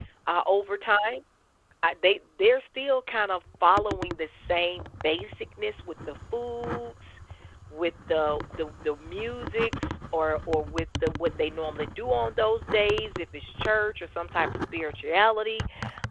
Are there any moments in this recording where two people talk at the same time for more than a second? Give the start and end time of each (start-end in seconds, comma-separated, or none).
none